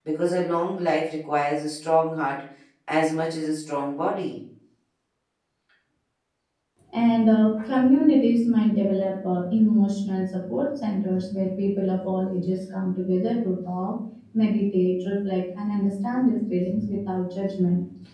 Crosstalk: none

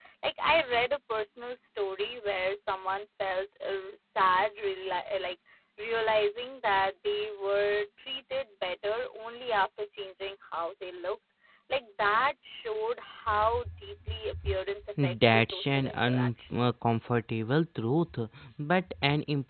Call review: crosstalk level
present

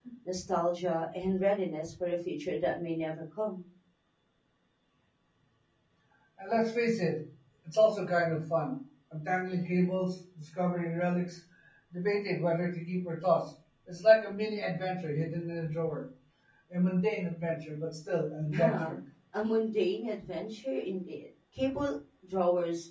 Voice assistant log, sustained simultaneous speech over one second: none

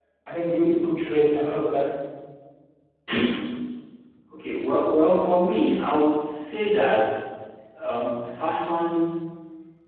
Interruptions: none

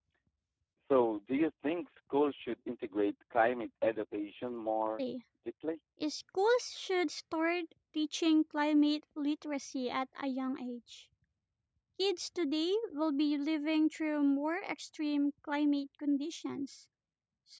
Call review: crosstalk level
none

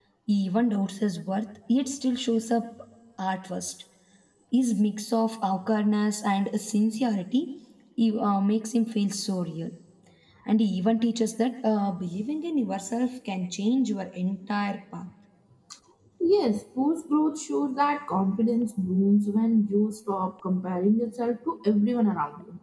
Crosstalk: none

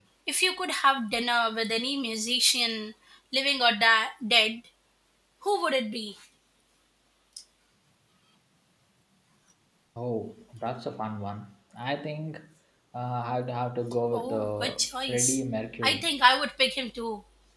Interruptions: present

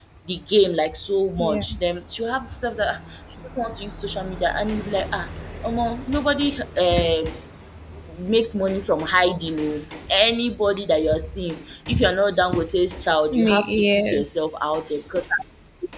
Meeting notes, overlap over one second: present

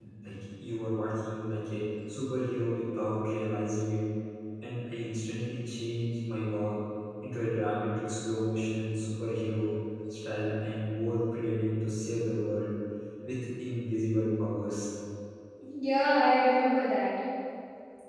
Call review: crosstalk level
none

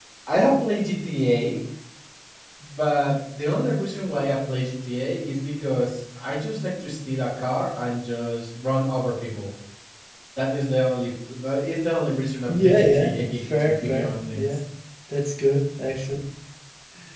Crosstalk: present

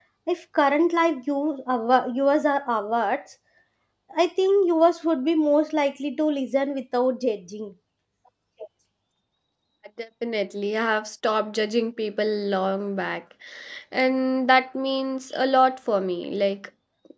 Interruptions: none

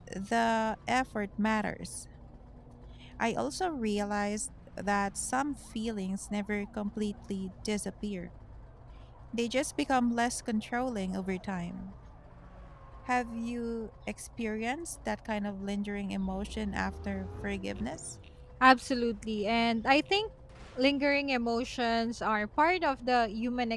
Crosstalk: none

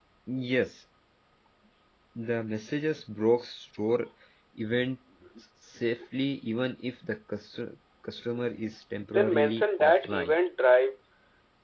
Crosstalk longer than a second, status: present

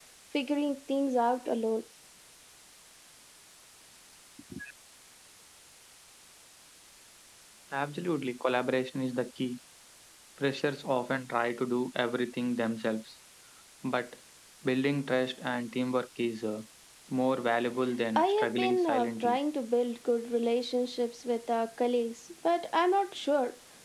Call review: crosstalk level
present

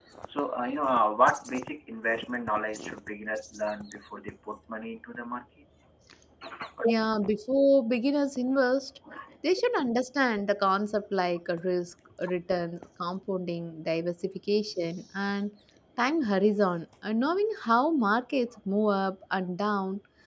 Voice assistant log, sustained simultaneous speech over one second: none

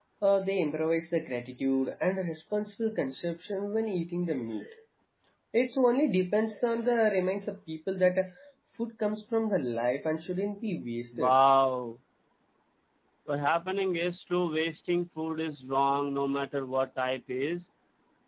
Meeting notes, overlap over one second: none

